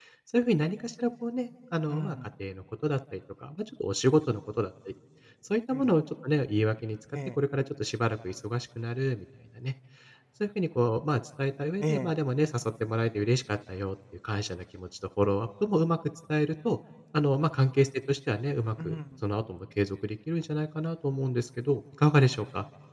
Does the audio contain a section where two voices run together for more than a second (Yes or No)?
No